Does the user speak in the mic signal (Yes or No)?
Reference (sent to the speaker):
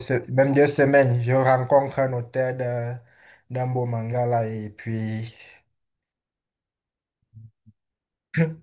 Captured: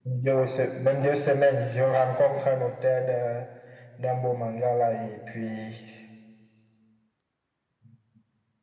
No